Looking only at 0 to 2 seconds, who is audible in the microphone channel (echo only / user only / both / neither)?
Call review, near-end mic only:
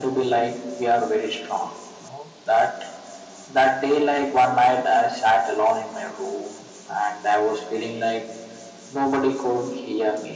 echo only